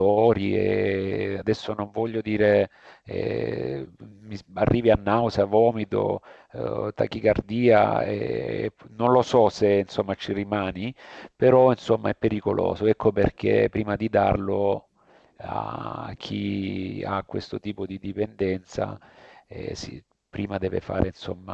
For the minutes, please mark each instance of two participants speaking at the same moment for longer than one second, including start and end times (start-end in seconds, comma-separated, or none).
none